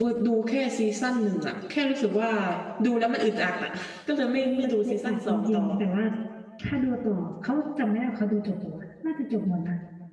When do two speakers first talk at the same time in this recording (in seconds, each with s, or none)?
4.3 s